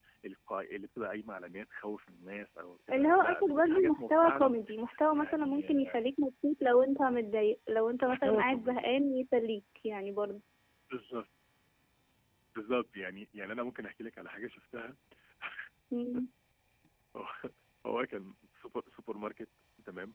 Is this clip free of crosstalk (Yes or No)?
No